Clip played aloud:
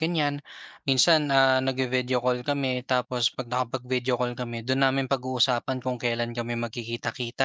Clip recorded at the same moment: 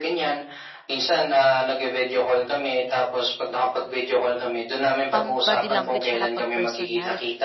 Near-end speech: present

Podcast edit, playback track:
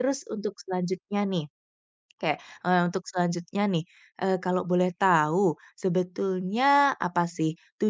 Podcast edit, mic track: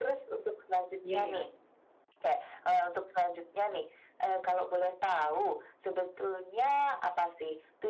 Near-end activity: present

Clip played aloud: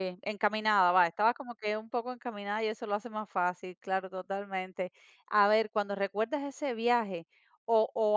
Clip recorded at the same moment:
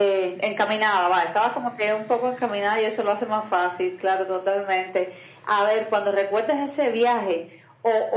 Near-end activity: none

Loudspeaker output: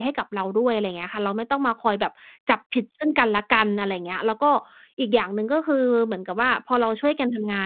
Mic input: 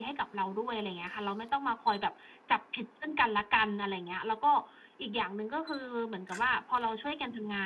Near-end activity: none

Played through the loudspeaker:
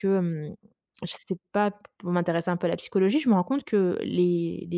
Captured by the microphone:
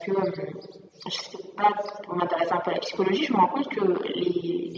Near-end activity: none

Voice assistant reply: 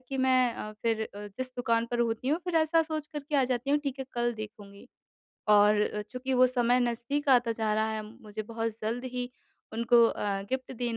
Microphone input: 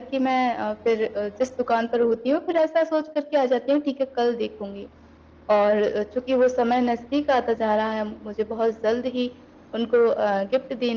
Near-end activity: none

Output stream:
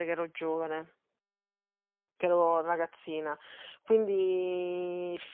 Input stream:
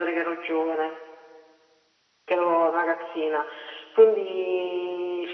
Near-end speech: none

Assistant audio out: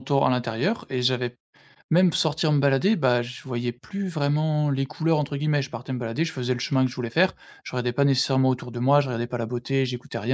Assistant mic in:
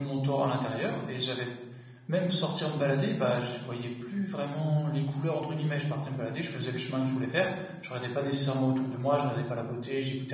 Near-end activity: none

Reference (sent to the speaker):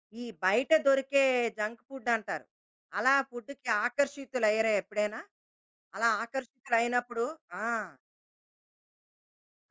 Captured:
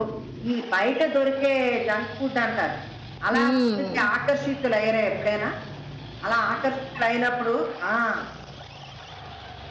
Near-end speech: present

